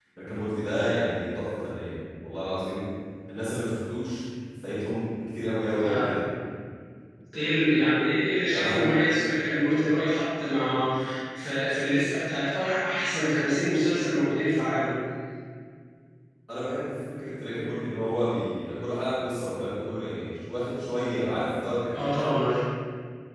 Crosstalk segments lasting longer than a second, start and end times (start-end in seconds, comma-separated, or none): none